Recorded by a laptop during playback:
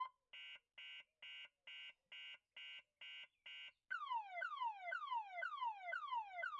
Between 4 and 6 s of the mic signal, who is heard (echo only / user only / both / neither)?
neither